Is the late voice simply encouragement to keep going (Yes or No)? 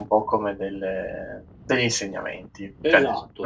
No